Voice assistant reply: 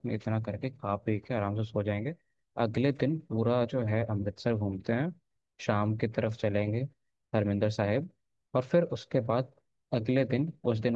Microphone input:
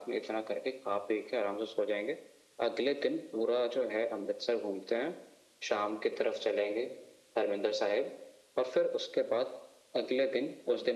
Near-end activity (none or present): none